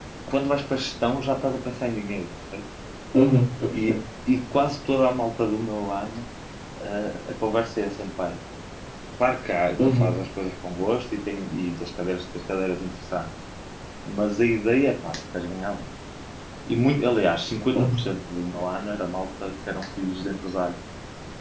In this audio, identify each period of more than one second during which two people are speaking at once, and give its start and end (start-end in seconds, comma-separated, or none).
none